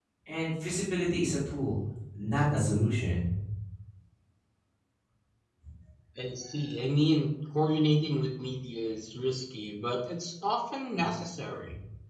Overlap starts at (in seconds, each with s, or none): none